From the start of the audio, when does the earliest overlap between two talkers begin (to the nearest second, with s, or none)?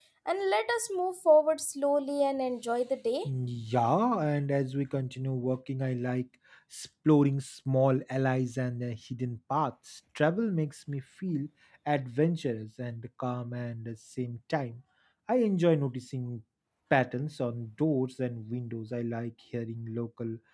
none